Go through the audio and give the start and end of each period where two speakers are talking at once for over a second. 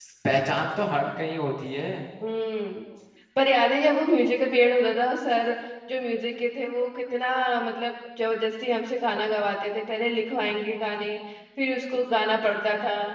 none

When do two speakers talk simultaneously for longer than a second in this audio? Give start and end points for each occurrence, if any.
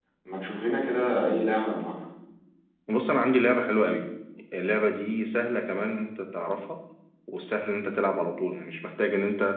none

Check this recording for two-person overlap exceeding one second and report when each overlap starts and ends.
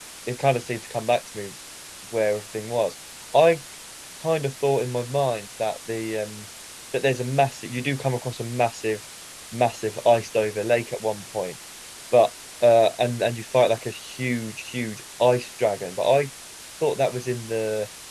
none

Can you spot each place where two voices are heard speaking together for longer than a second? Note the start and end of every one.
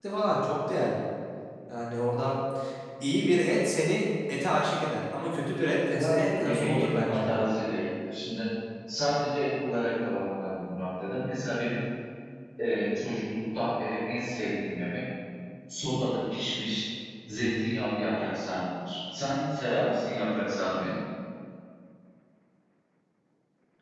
6.0-7.3

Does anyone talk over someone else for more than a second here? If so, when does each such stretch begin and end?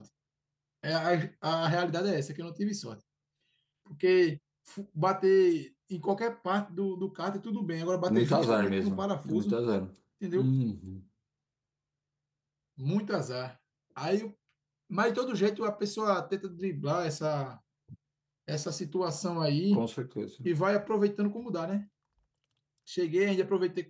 8.1-9.6

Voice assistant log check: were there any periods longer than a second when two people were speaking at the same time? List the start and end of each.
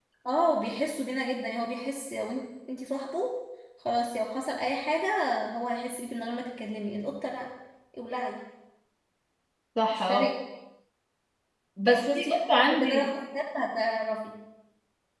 11.8-13.1

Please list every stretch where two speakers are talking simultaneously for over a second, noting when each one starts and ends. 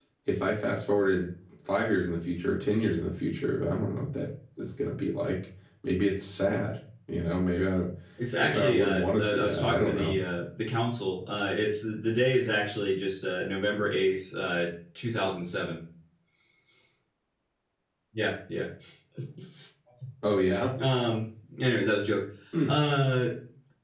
8.4-10.2

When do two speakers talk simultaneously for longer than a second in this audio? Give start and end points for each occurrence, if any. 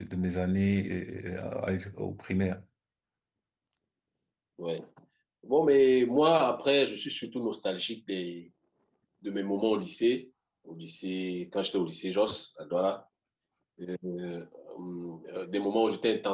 none

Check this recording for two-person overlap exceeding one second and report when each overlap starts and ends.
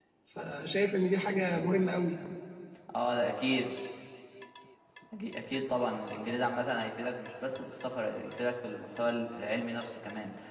none

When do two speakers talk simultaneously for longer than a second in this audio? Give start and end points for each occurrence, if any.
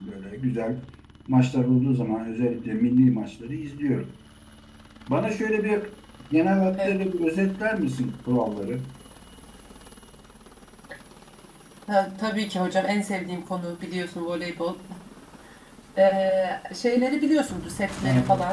none

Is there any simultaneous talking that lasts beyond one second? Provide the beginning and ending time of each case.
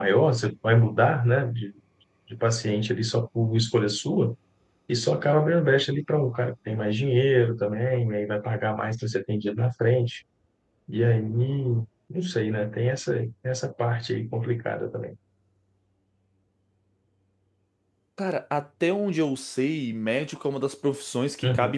none

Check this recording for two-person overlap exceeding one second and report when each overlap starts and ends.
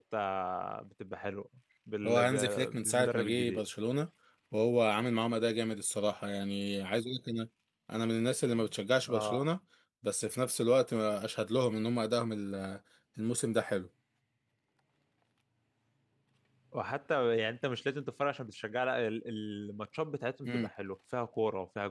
2.1-3.6

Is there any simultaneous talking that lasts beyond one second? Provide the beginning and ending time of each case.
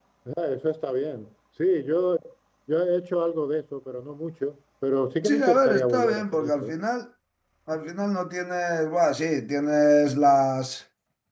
5.2-6.7

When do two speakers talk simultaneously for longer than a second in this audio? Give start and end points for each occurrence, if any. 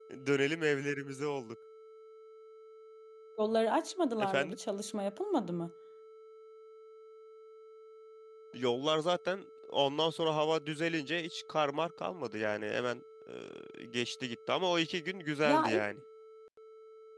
none

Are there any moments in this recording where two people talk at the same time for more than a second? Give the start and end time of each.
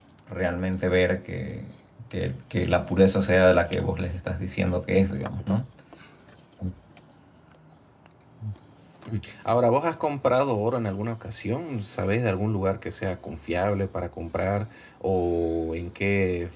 none

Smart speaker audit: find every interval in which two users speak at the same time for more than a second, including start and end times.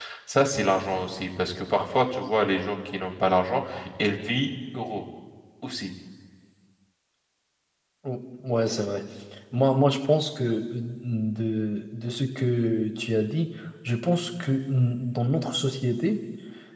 none

